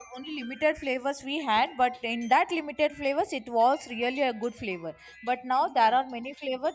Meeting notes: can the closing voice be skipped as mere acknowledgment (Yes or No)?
Yes